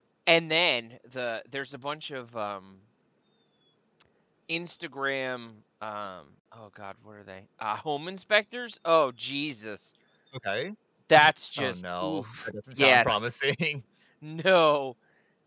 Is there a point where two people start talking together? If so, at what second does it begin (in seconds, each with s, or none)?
11.6 s